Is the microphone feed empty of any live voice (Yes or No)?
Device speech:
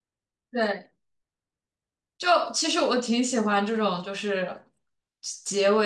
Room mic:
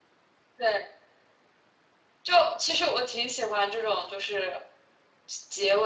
Yes